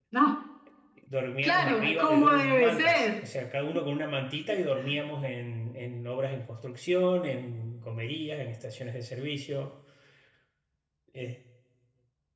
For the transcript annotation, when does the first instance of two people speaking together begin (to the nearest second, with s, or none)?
1 s